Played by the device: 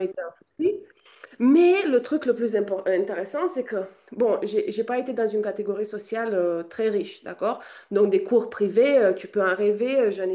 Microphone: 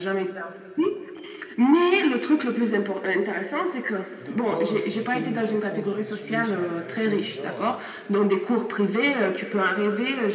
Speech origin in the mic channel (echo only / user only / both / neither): both